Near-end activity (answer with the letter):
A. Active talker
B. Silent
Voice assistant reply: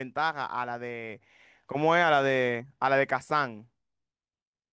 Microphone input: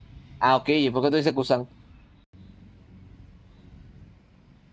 A